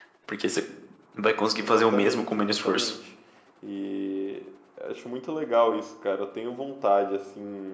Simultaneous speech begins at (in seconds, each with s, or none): 1.6 s